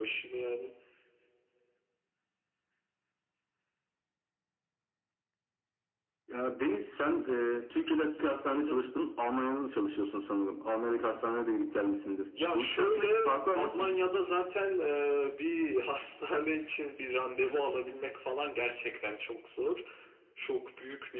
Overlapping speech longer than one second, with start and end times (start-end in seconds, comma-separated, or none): 12.5-13.9